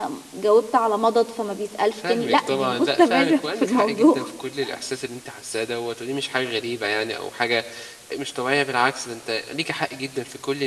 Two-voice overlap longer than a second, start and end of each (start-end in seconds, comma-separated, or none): 2.1-4.2